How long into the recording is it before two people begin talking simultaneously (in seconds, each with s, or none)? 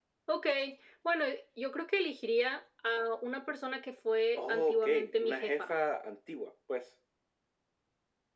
4.4 s